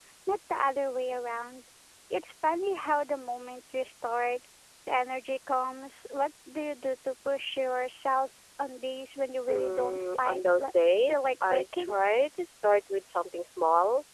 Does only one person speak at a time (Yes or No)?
No